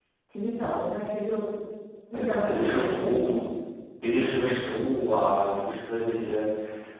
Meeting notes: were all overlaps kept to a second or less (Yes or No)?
No